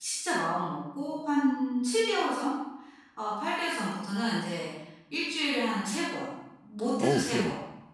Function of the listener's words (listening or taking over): listening